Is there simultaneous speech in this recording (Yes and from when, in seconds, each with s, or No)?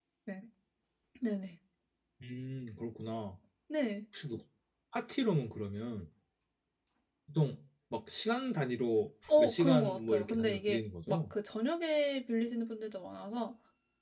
Yes, from 9.2 s